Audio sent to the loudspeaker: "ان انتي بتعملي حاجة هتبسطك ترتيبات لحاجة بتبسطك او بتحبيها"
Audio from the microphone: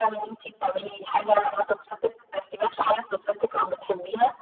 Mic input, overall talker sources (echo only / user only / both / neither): echo only